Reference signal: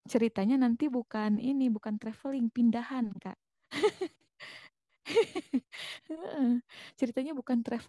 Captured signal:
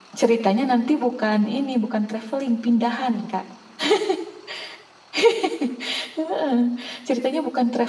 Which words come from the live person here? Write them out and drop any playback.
none

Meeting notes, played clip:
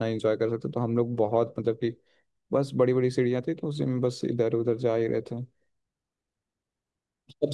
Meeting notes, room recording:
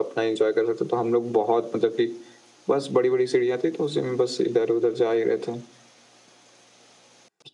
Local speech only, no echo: none

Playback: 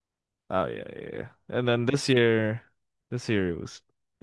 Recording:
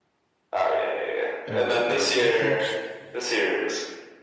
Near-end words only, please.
Damn, yo, yo, Jokic.

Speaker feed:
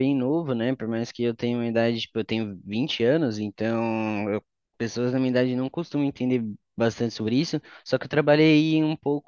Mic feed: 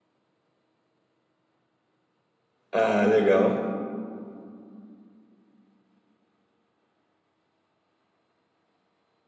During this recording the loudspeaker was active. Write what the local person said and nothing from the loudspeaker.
Ah, legal.

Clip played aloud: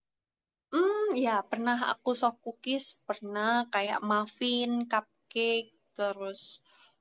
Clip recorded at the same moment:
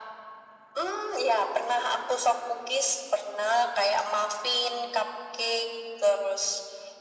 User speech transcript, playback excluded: none

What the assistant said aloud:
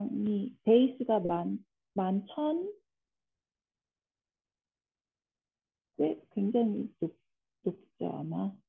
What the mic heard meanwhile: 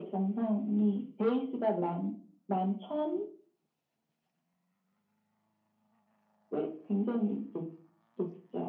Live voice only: none

